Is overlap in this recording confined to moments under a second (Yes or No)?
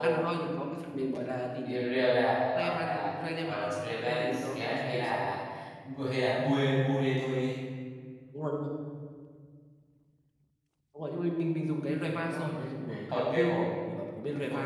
No